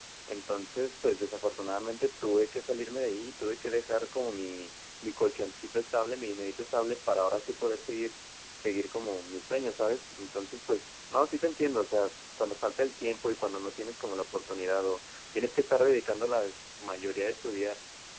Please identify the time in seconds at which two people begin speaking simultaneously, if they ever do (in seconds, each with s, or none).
none